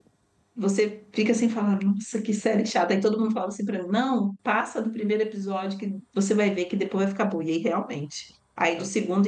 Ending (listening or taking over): listening